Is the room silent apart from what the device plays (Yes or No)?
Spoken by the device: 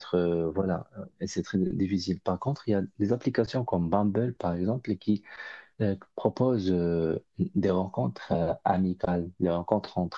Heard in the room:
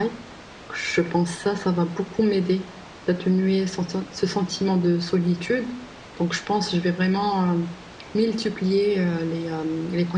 No